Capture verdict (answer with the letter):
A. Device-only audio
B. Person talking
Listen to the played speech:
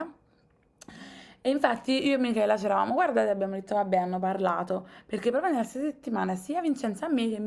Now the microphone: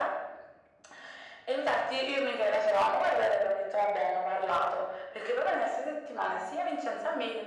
A